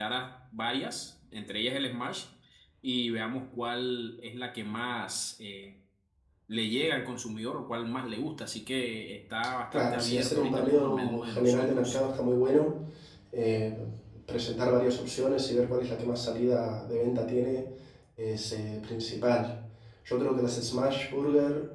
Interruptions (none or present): present